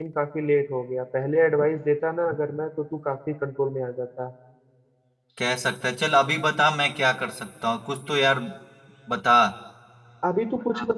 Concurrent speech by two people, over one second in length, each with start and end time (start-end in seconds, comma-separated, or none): none